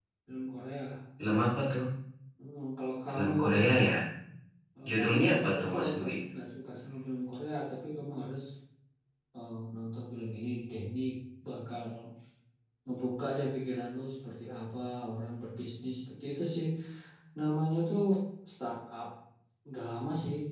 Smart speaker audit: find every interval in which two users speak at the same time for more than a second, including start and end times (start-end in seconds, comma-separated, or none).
4.9-6.1